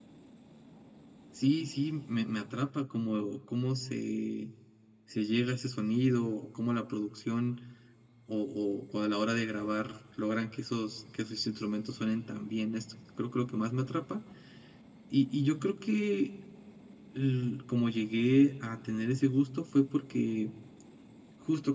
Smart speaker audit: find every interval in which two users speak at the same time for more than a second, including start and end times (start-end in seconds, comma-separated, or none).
none